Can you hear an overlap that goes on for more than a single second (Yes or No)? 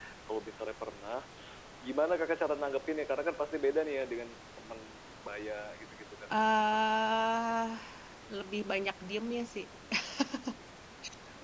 No